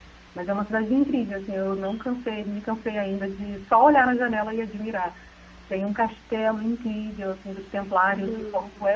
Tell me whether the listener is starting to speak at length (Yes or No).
No